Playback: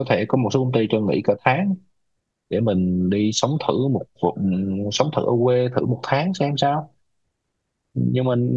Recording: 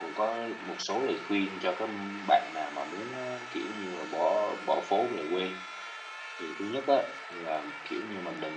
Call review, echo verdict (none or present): none